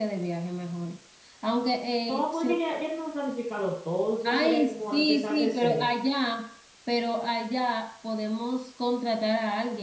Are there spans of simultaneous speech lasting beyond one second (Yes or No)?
Yes